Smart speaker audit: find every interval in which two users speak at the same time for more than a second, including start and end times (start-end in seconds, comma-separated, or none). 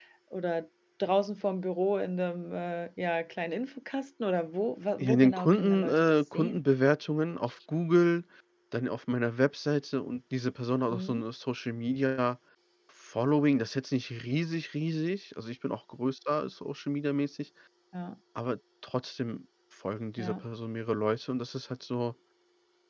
5.0-6.6